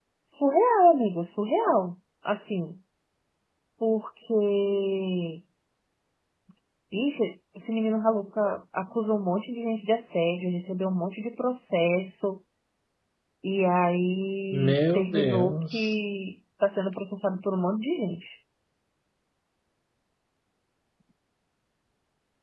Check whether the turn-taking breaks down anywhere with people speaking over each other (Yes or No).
Yes